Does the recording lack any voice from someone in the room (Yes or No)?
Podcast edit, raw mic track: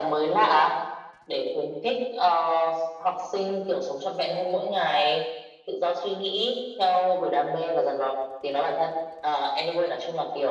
Yes